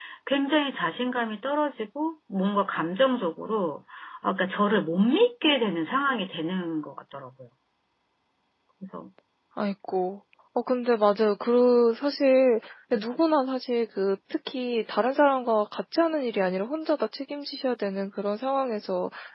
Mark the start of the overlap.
none

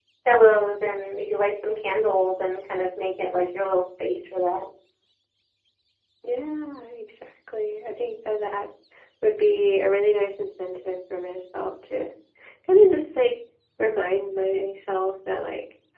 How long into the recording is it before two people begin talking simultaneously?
none

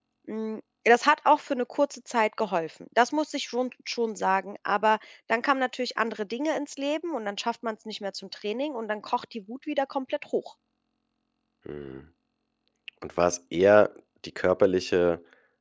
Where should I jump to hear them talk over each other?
none

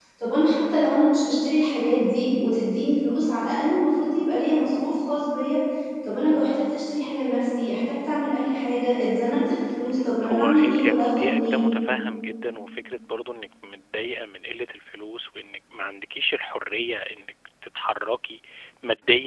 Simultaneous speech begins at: 10.2 s

